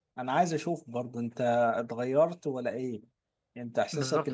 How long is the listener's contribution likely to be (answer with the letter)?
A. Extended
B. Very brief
A